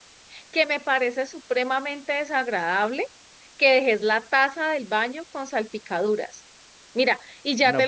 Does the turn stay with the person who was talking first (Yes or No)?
Yes